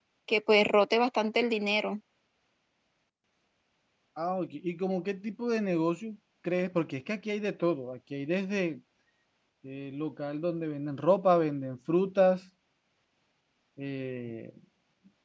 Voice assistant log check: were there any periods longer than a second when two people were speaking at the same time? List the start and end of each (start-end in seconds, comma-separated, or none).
none